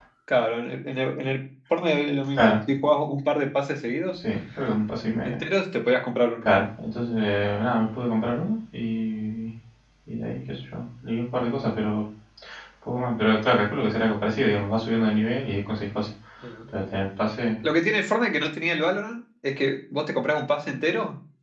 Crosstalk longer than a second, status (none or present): none